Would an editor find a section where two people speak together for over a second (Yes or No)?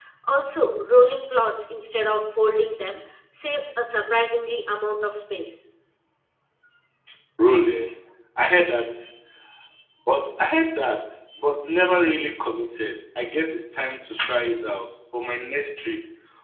No